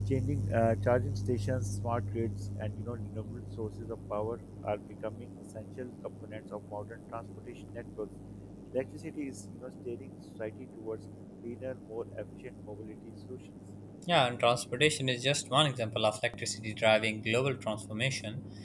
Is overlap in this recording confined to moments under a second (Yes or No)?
Yes